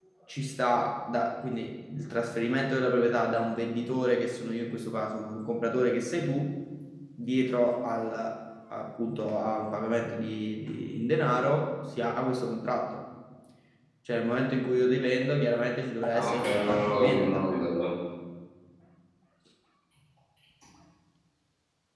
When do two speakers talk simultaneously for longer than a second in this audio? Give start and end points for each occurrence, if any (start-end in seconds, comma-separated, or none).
16.1-17.4